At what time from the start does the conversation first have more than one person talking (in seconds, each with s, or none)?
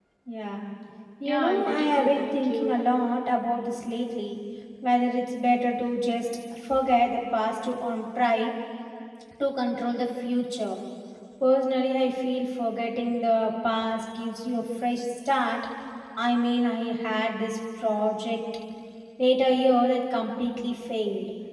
1.2 s